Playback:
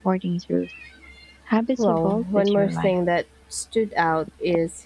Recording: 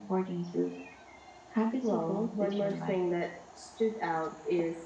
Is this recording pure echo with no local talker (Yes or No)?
Yes